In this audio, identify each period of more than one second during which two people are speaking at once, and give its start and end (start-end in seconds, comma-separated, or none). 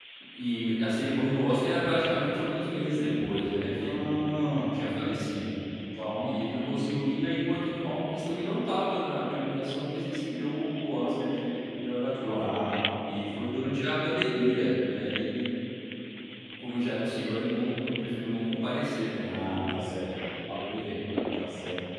none